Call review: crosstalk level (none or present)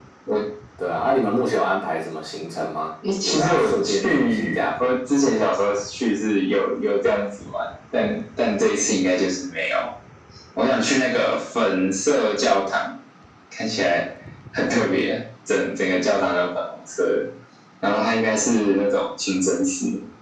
present